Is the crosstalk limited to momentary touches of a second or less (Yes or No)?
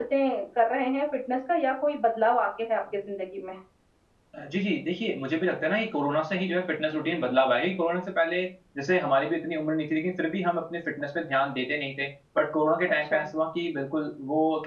Yes